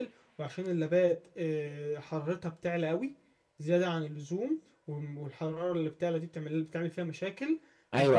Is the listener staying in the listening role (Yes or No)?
No